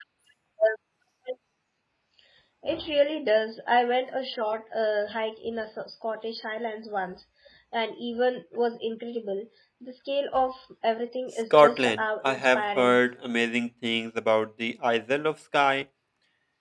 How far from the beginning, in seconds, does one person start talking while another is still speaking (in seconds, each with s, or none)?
11.5 s